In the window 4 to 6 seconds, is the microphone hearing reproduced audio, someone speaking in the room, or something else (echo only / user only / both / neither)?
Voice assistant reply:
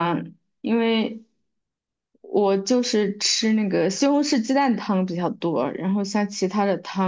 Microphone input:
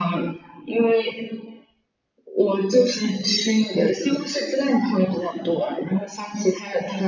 echo only